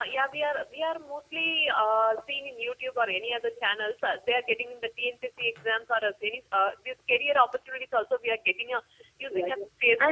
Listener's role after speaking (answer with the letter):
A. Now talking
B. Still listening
A